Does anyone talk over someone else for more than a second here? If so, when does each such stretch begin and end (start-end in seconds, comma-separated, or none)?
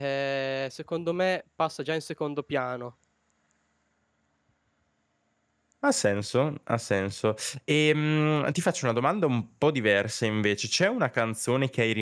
none